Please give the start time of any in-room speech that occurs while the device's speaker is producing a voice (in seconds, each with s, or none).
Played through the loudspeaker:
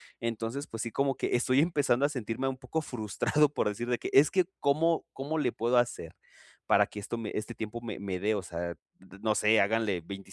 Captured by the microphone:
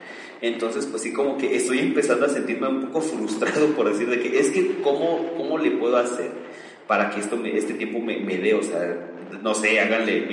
none